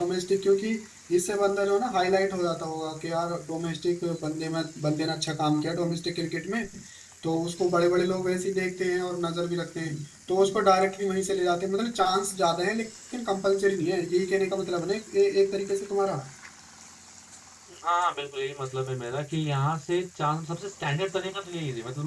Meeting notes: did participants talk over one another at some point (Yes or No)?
No